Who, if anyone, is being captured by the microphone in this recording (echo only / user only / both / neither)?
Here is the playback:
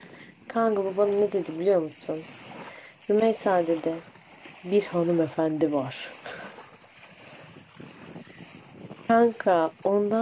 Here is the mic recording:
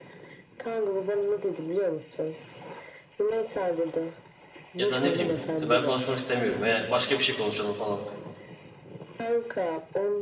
both